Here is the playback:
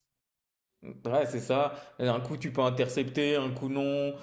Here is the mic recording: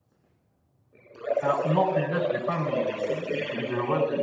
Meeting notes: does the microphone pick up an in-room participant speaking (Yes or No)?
Yes